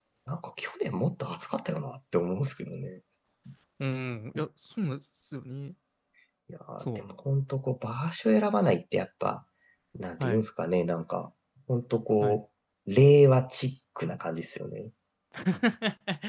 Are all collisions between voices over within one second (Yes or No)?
Yes